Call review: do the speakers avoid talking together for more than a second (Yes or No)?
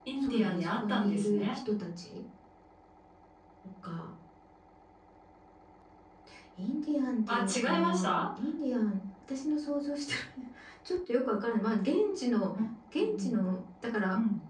No